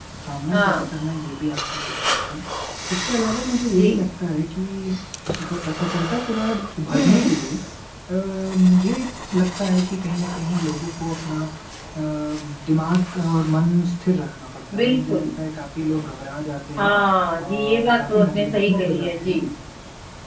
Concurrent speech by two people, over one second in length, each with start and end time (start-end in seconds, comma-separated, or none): 17.4-19.4